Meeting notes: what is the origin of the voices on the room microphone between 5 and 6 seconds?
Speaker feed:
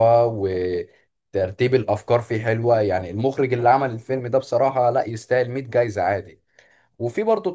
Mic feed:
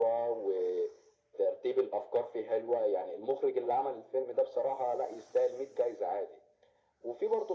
echo only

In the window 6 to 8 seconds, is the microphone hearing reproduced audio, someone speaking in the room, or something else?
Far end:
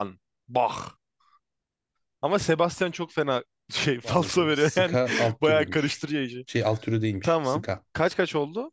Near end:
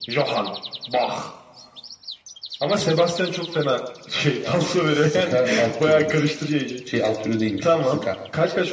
echo only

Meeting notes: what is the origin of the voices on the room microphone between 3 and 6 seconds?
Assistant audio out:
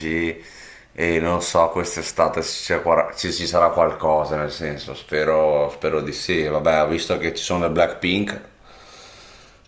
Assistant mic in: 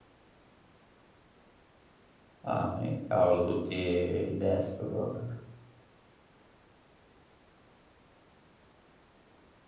user only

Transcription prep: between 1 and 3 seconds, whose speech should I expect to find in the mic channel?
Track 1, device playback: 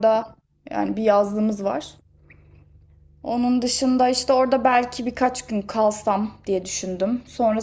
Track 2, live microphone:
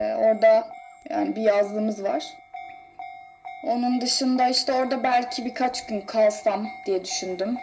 echo only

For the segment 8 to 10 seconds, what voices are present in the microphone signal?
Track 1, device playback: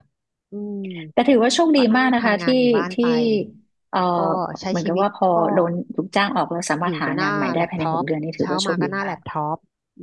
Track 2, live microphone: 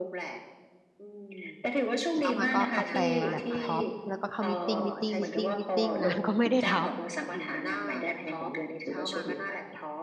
echo only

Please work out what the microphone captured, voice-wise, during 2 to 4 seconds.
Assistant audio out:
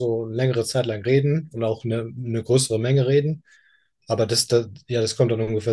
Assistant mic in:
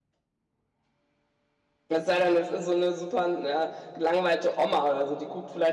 user only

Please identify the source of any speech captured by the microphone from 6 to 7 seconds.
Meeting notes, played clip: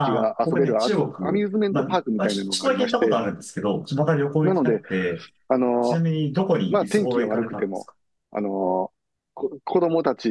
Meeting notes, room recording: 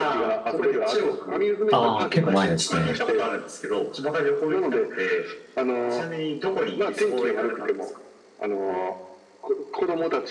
echo only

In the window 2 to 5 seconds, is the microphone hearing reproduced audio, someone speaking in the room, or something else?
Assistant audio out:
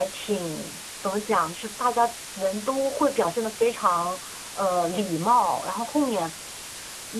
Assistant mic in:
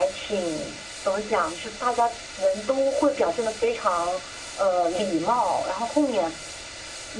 echo only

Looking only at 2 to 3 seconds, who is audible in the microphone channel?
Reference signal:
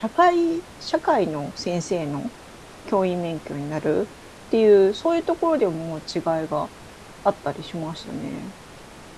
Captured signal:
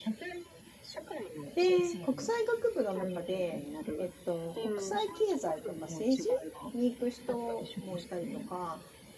both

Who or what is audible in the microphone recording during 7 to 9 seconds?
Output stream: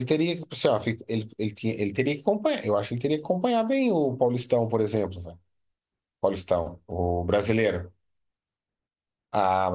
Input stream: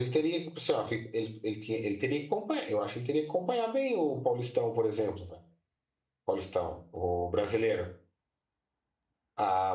echo only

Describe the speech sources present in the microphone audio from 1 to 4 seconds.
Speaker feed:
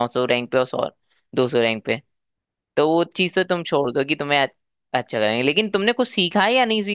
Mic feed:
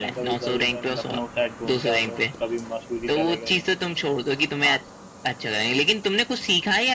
both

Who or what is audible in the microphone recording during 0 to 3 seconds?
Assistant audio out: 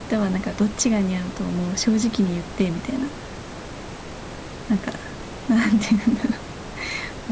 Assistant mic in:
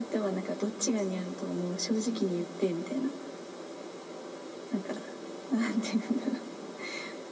echo only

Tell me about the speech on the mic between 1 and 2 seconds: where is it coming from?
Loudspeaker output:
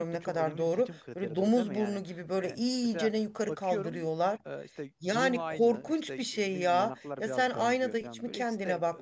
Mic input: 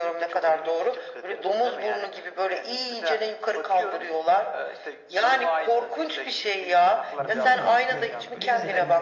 echo only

